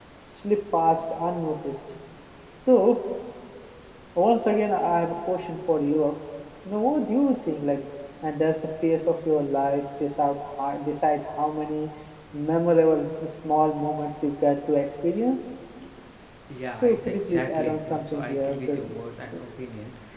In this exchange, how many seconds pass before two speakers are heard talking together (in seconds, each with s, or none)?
16.8 s